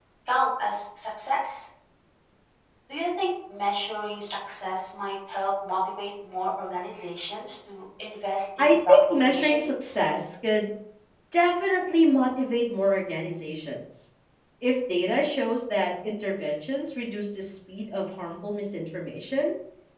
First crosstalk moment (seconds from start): 8.6 s

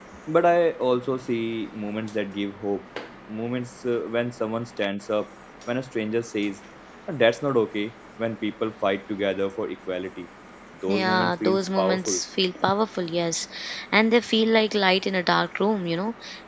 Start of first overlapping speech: 10.9 s

